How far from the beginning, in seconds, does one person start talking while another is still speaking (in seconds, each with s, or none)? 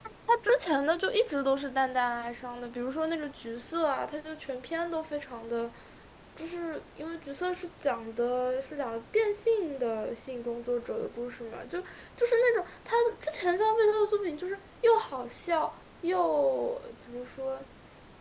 none